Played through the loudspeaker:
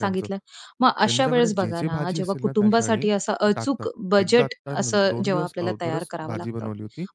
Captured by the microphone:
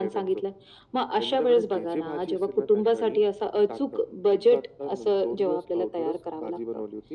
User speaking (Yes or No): No